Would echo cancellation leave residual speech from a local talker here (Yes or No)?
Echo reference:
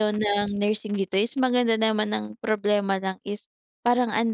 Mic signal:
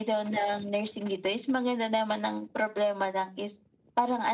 No